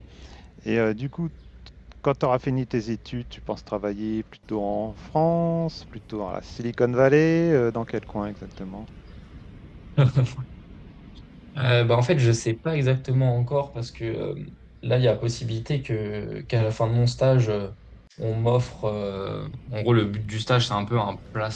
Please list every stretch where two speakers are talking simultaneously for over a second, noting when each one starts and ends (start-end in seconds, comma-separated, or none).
none